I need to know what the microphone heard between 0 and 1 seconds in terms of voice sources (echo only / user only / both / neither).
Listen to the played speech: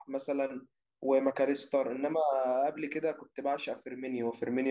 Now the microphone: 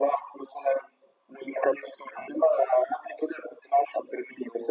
echo only